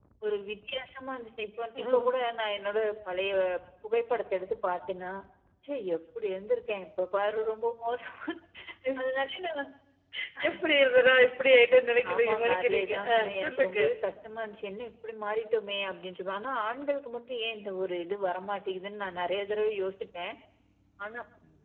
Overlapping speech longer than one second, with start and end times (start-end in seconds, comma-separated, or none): 12.1-13.8